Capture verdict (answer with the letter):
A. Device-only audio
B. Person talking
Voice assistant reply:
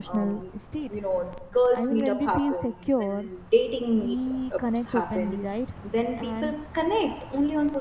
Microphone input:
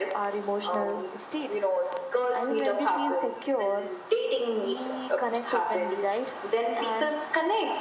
A